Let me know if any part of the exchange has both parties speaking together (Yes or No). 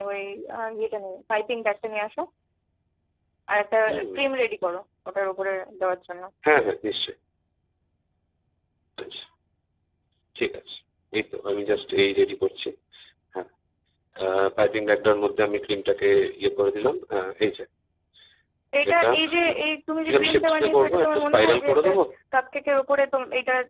Yes